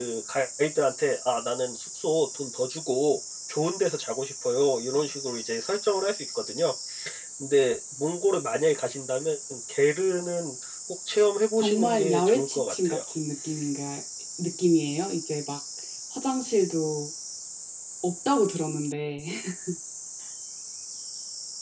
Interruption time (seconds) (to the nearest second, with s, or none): 12 s